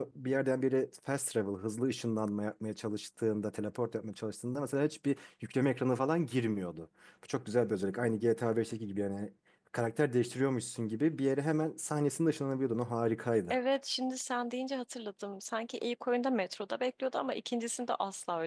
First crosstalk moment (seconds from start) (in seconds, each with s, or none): none